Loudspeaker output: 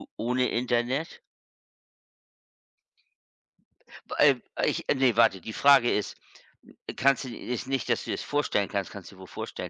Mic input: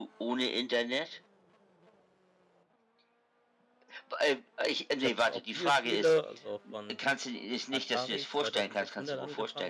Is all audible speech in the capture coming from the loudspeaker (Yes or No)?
No